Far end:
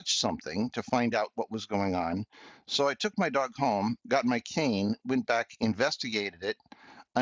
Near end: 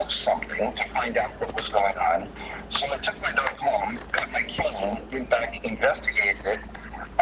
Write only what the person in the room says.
none

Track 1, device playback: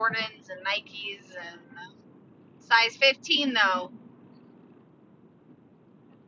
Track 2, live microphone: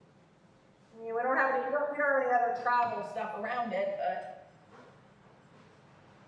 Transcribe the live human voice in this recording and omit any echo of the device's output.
I mean, we don't have any we don't, we don't have any other travel stuff around it, but

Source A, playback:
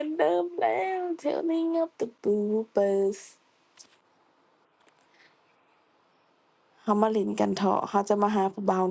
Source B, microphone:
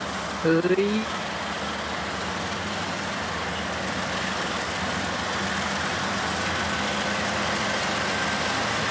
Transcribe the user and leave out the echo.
เฮ้ย

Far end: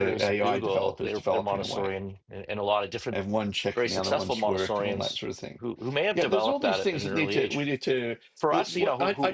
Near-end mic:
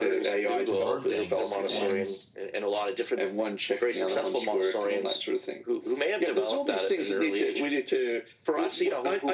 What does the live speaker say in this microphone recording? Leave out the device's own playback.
to learn things, and

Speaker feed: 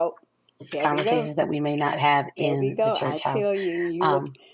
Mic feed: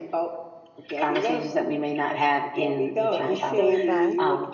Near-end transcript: that we stand by

